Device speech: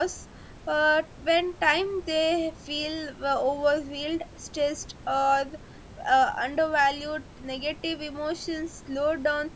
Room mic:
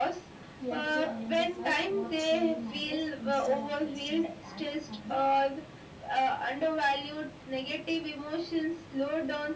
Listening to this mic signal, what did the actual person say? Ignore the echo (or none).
help to identify what truly matters instead of wasting a time on the